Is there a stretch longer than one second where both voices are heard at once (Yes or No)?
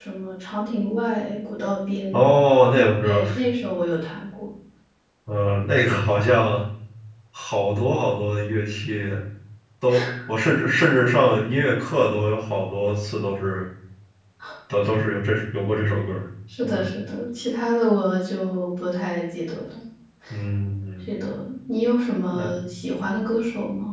No